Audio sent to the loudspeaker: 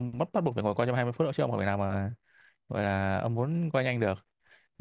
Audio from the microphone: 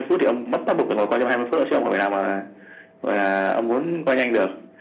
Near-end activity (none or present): none